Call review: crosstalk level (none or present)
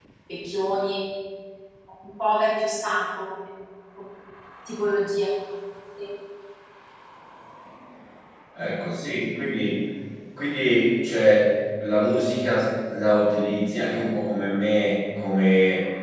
none